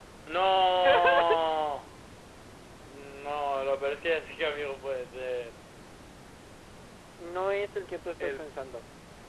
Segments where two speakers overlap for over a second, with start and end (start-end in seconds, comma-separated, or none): none